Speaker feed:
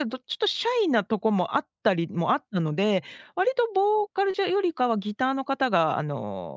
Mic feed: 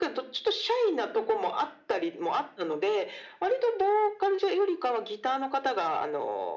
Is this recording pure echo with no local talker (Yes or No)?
Yes